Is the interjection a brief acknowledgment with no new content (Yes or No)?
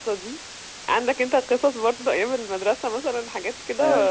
No